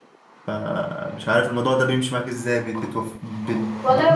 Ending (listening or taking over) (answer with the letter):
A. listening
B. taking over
B